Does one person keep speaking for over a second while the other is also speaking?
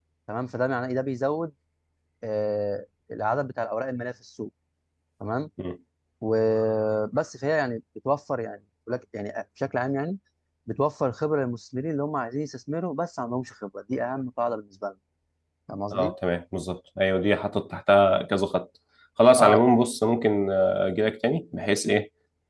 No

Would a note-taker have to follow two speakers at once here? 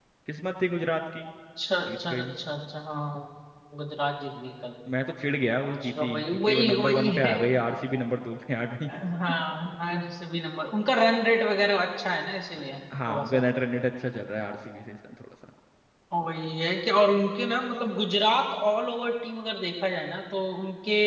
Yes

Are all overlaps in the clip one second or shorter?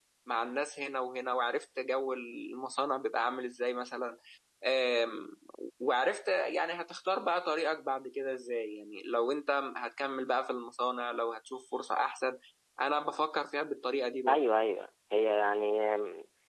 Yes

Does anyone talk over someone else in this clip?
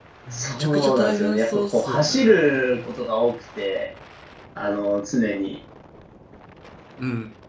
Yes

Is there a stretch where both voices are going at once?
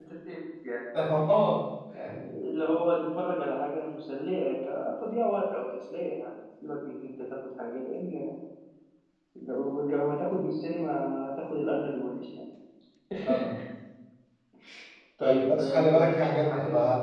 Yes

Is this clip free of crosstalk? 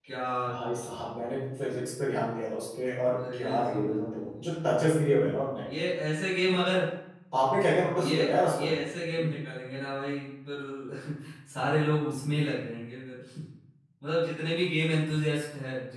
No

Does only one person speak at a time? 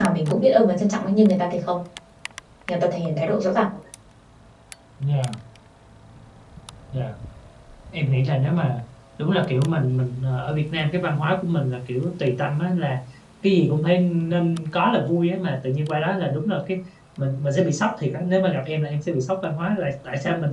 Yes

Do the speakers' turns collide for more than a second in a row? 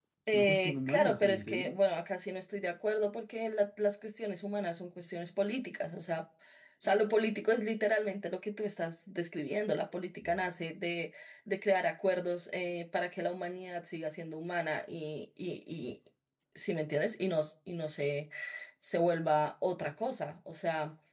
Yes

